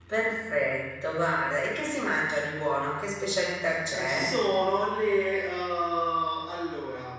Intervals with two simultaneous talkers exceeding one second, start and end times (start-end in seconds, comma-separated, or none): none